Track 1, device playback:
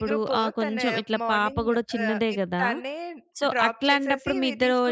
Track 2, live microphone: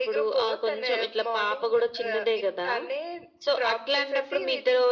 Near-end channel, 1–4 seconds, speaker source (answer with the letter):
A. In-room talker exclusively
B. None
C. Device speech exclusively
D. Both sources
C